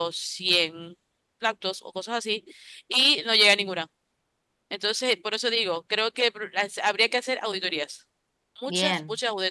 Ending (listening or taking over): listening